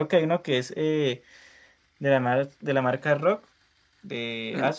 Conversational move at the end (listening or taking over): taking over